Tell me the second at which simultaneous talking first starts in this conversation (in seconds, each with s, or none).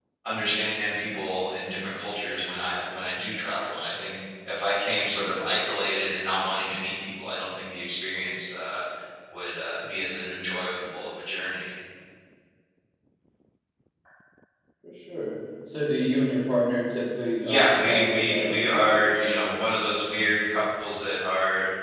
17.4 s